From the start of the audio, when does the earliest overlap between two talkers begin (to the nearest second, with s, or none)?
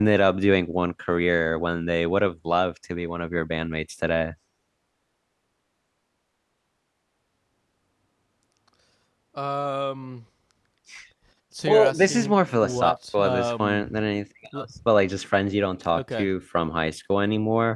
12 s